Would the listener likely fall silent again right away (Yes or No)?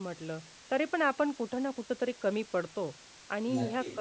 Yes